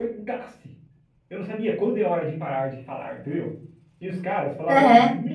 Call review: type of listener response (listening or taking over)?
listening